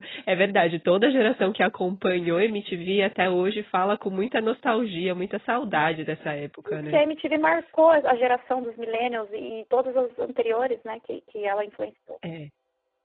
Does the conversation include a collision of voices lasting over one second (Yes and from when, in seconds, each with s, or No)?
No